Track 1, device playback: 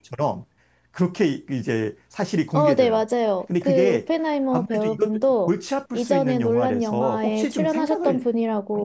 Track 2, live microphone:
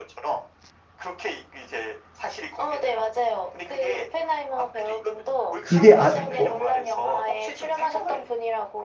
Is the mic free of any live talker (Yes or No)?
No